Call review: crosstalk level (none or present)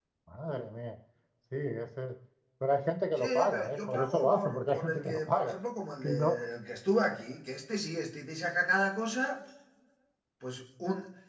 present